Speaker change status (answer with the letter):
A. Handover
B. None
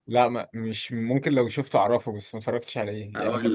A